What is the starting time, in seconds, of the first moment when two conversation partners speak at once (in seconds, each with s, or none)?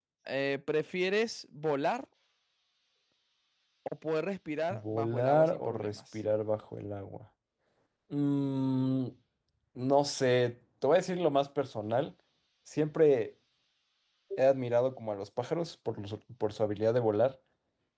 4.7 s